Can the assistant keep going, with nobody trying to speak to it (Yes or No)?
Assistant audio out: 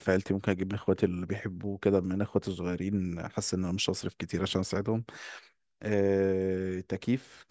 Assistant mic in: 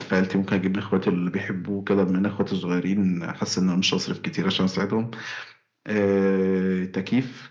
Yes